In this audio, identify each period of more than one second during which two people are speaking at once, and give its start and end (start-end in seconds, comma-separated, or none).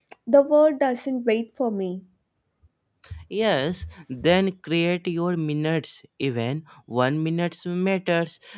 none